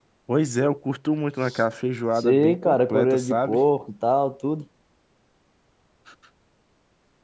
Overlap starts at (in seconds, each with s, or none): 2.2 s